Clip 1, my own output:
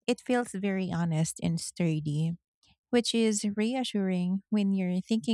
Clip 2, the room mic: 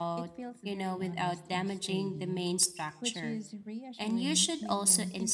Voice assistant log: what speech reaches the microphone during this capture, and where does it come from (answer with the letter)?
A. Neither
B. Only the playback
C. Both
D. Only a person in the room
C